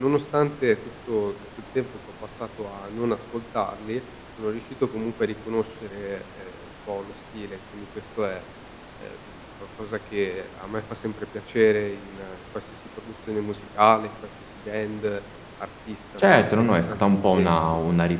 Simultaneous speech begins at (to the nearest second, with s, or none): 16 s